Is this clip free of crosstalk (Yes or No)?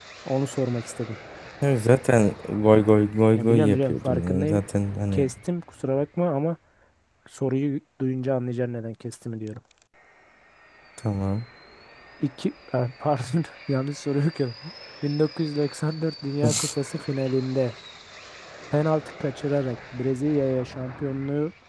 No